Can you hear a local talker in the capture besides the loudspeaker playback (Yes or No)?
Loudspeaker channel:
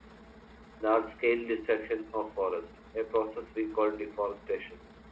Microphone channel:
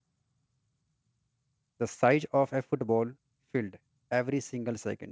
Yes